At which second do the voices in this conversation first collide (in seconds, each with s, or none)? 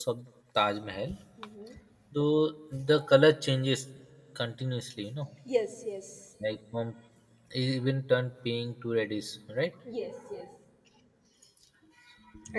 none